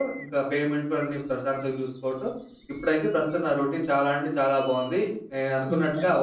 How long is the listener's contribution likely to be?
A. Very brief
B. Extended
A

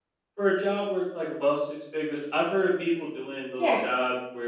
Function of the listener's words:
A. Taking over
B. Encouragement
B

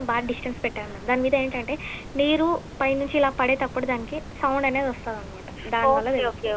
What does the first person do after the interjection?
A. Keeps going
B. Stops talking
B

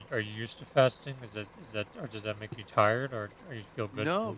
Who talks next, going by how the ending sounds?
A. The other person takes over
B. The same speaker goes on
A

